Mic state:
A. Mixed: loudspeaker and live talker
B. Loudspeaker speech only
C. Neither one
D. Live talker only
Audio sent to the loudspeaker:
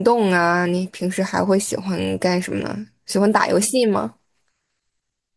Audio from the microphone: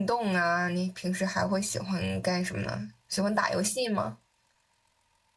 B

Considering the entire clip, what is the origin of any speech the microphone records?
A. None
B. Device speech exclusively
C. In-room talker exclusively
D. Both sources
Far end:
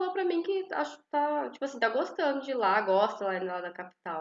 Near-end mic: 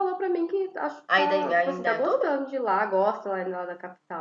D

